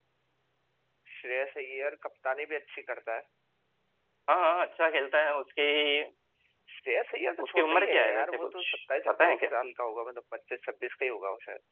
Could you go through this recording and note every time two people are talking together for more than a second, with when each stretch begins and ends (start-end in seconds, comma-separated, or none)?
7.4-8.7